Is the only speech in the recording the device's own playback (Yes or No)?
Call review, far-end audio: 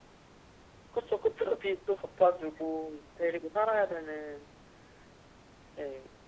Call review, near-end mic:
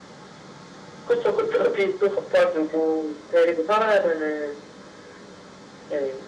Yes